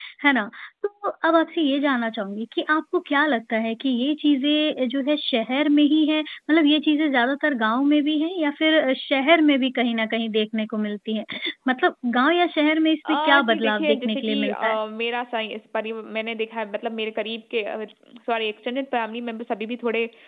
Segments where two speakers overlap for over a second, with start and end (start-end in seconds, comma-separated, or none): 13.1-14.8